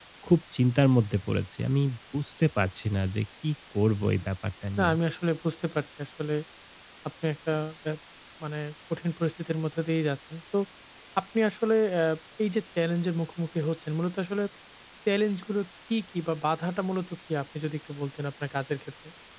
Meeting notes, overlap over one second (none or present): none